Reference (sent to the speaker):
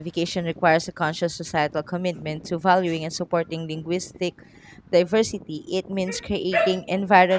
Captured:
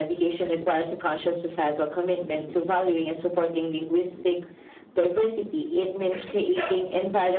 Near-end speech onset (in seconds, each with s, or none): none